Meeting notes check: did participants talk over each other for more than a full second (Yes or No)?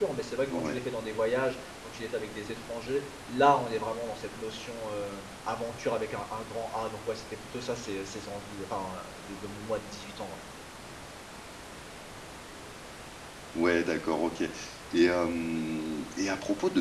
No